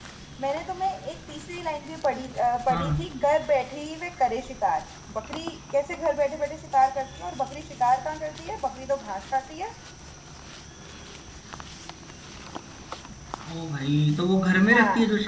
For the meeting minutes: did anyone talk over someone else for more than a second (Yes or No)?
No